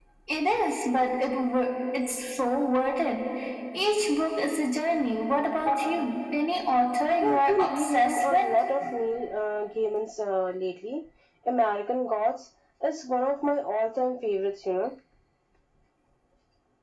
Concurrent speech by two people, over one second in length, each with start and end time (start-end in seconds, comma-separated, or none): 7.1-8.5